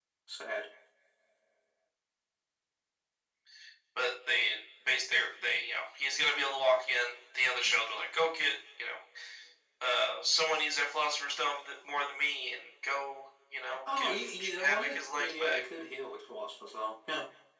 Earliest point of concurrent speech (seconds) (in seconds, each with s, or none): 13.9 s